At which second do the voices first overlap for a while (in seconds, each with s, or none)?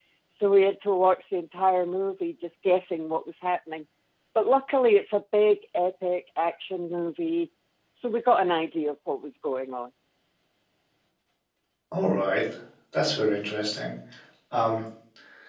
none